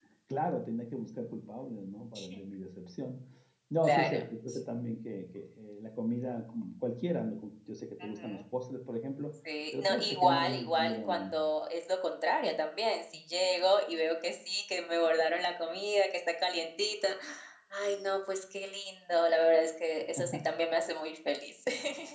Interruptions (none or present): present